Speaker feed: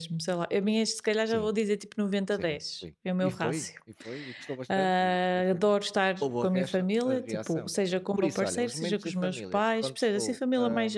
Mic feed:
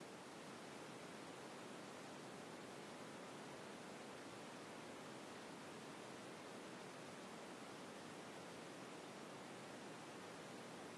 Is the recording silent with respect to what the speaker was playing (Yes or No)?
Yes